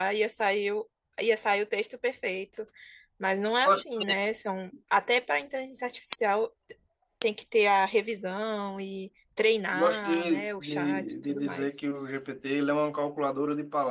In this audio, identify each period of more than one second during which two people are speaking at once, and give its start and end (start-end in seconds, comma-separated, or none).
9.7-11.8